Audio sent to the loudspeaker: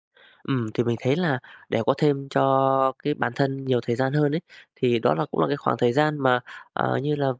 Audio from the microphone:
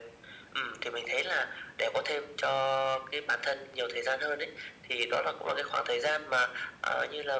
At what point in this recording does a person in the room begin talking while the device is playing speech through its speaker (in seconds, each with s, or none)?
none